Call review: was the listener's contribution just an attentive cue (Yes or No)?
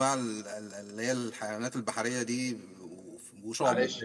No